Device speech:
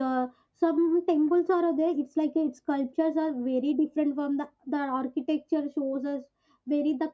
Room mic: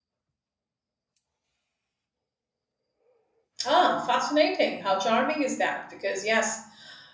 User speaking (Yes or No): Yes